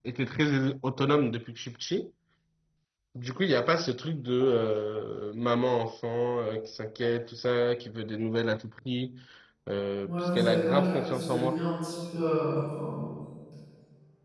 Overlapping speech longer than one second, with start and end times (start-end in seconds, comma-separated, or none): 10.0-11.6